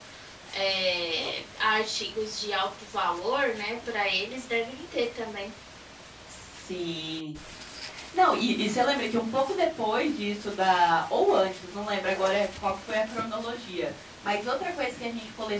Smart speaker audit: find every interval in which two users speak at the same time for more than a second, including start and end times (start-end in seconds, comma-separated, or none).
none